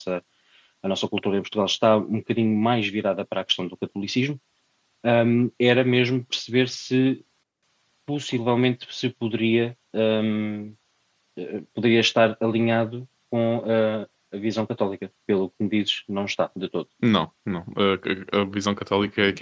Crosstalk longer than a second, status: none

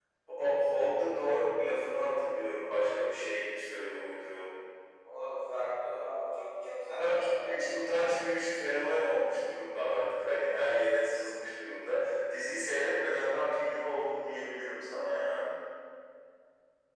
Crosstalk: present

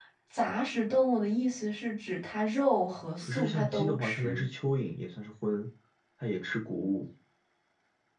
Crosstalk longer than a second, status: present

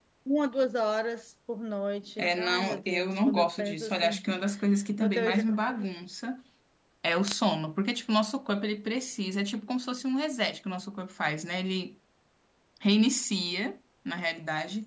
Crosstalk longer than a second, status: present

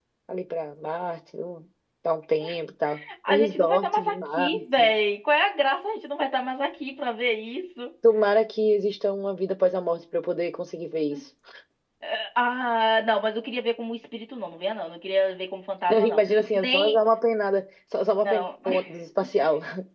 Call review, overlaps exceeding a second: present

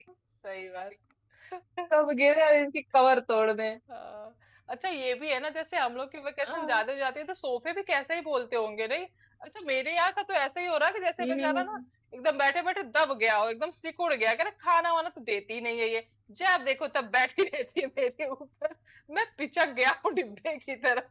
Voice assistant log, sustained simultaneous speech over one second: none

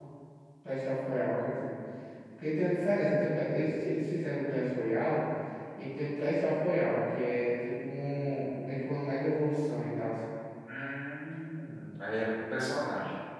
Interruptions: none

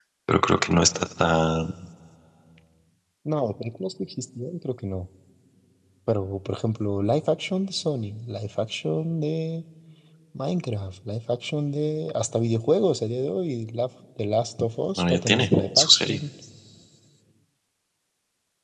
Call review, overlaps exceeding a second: present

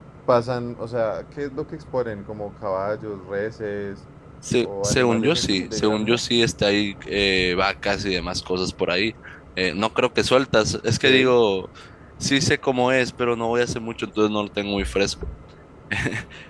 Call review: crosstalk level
present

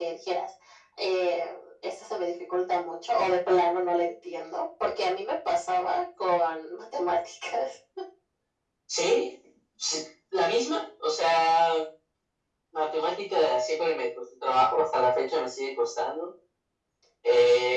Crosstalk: none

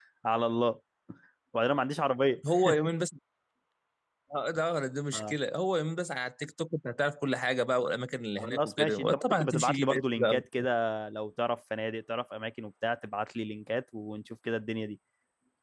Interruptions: present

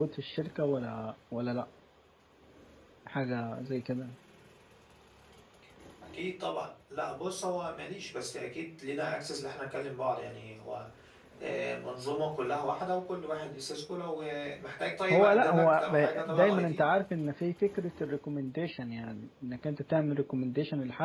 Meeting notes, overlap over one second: present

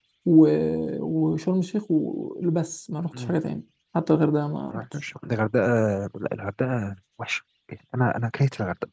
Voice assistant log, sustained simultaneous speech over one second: none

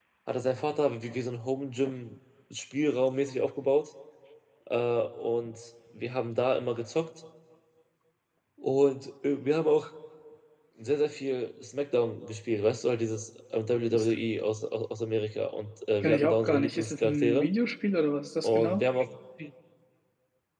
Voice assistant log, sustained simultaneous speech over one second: present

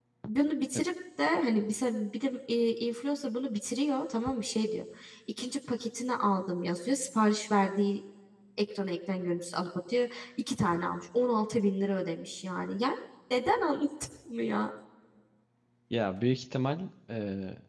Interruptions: none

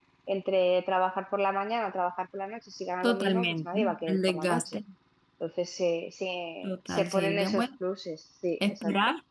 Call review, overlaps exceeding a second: present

